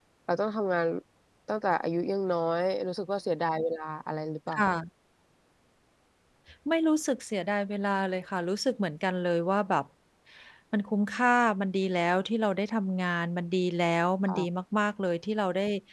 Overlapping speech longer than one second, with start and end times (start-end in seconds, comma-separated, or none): none